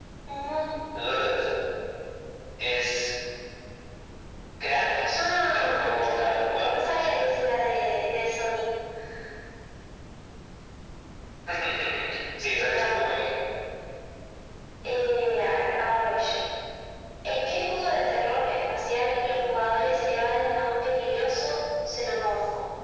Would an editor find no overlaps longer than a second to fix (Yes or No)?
No